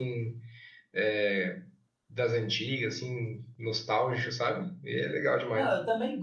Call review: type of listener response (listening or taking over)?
taking over